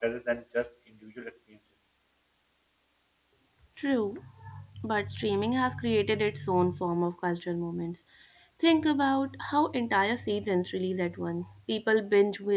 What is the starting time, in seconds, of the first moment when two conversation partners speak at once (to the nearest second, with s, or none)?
none